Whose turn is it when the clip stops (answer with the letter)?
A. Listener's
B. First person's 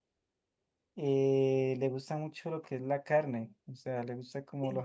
B